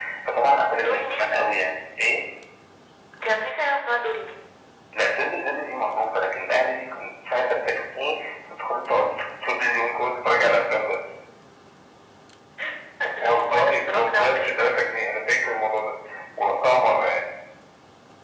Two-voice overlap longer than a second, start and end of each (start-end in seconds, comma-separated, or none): 13.2-14.6